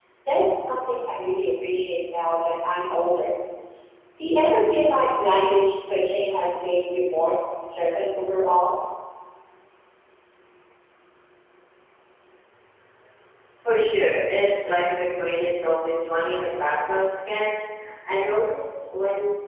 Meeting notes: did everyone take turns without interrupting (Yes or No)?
Yes